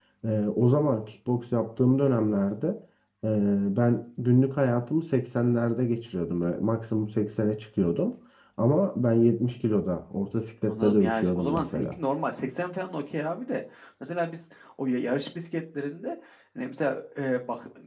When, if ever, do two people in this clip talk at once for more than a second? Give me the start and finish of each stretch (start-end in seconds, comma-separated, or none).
10.7-11.9